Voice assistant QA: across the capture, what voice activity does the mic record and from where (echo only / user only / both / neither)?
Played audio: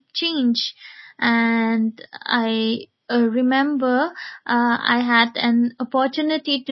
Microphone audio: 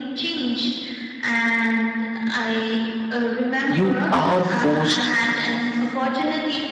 both